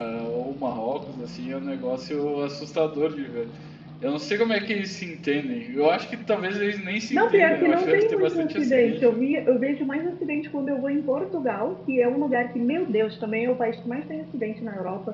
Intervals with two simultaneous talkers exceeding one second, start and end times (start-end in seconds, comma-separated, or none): 7.1-9.2